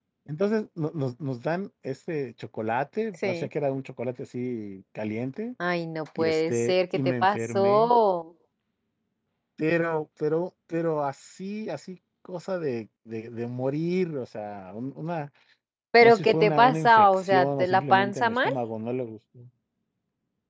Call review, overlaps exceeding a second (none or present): present